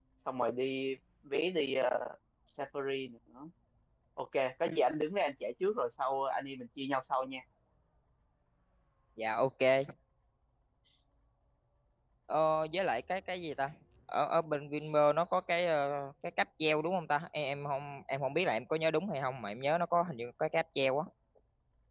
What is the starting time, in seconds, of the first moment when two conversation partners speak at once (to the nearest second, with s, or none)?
none